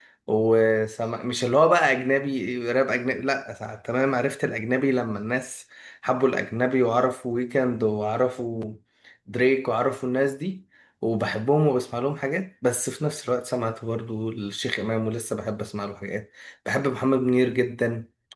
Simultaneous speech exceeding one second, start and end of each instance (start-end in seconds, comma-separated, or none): none